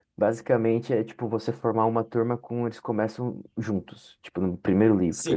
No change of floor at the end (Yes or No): No